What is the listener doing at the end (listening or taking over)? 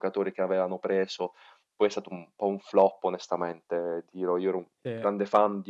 listening